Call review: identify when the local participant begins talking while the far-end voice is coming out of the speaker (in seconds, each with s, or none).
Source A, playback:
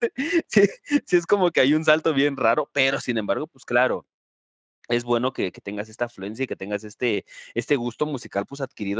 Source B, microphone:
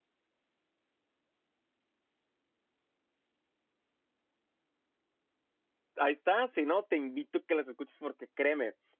6.0 s